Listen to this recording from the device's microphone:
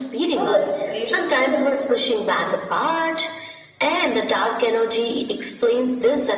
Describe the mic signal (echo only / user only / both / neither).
both